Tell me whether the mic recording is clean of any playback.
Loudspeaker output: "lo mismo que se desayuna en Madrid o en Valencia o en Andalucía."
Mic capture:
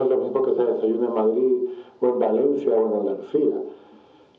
No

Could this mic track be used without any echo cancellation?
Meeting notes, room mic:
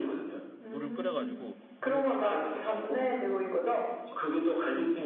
No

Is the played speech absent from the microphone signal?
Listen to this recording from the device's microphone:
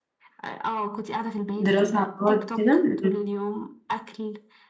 No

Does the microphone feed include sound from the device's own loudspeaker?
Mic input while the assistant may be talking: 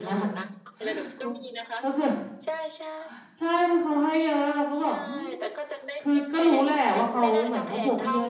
Yes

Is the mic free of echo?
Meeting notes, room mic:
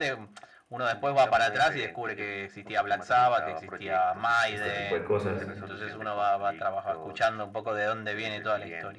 No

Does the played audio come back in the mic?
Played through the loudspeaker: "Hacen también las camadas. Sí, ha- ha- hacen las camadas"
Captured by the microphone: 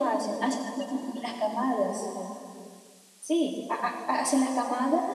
Yes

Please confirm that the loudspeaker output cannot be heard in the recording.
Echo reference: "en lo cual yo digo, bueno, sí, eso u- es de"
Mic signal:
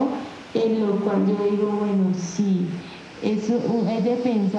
No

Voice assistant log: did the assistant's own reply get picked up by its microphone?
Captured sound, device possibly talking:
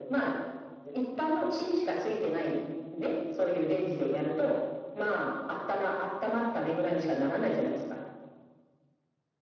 Yes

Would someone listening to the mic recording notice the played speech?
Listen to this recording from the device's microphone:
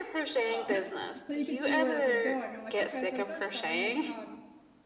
Yes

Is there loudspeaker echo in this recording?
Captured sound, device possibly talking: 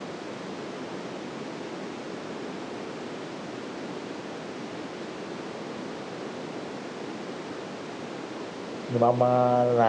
No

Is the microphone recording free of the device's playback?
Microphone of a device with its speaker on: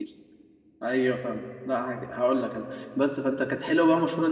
Yes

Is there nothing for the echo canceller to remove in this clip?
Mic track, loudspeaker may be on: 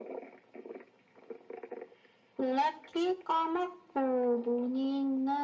No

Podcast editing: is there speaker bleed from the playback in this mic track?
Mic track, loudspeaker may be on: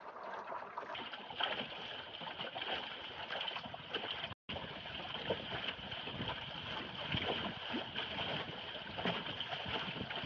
No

